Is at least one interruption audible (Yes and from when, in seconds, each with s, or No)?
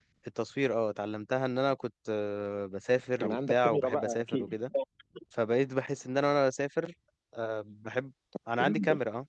Yes, from 3.2 s